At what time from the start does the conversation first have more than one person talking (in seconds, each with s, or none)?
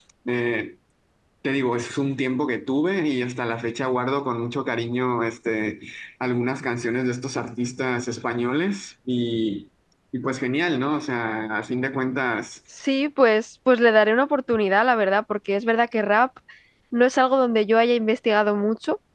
none